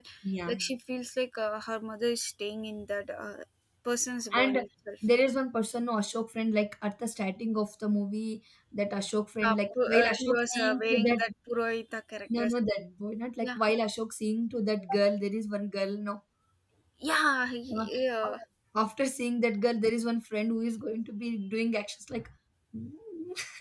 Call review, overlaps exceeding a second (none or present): present